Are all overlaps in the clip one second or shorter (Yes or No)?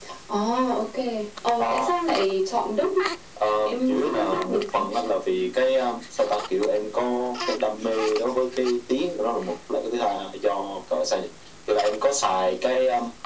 No